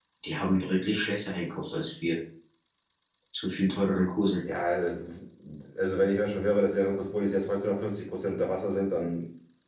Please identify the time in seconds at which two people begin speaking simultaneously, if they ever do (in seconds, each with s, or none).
none